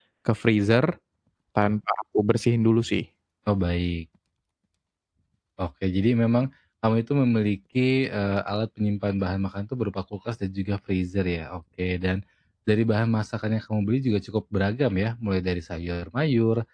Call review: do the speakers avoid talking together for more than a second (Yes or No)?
Yes